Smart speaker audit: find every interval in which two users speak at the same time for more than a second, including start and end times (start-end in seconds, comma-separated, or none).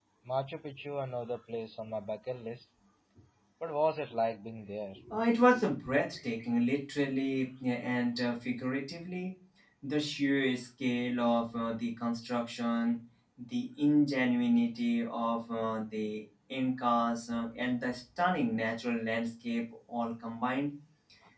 none